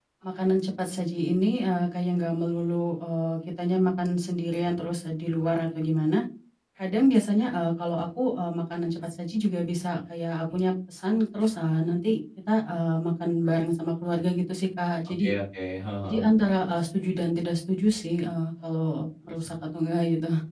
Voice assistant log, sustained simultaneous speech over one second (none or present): none